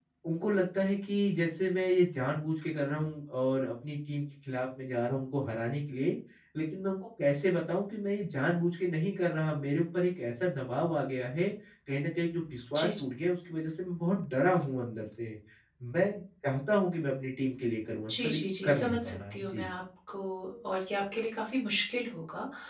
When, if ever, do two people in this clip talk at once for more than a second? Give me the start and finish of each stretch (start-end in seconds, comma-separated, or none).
18.1-19.7